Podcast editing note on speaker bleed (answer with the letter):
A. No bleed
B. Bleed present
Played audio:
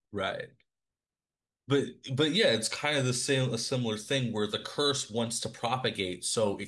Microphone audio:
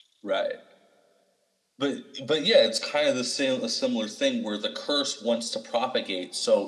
B